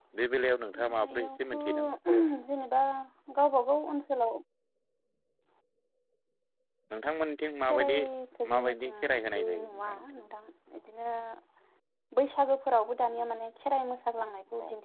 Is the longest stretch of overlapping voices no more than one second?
No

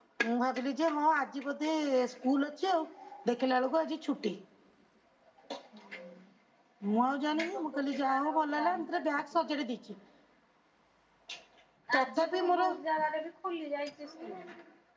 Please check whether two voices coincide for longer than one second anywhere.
Yes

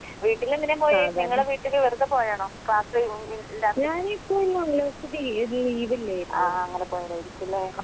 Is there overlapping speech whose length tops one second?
No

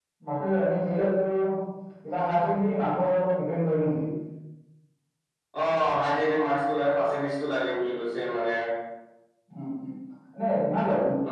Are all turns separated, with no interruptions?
Yes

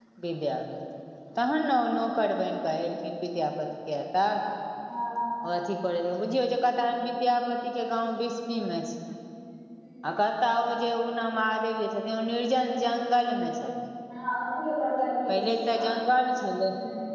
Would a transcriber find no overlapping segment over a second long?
Yes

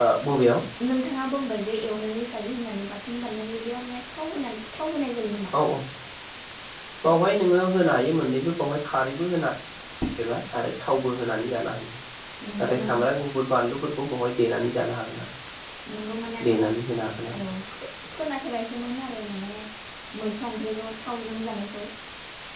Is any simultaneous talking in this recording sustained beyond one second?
No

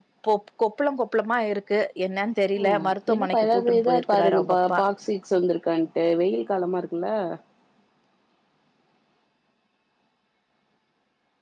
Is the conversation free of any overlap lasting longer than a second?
No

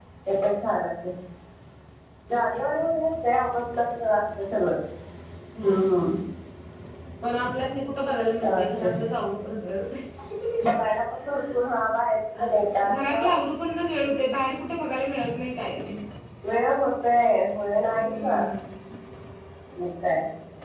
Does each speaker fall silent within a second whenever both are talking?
Yes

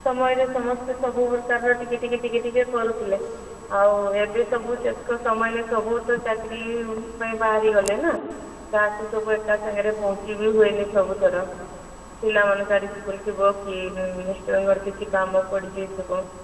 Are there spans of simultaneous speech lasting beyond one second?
No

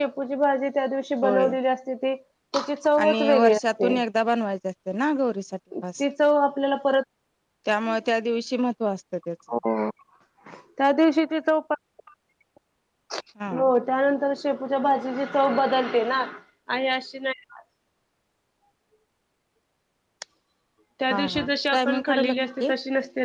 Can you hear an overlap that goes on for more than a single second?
Yes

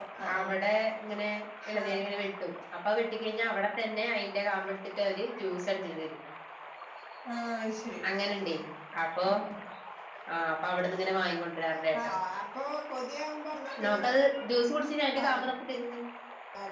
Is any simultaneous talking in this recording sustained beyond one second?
No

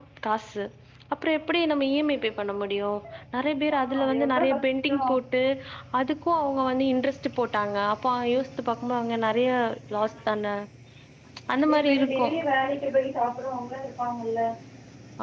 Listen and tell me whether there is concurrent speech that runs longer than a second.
Yes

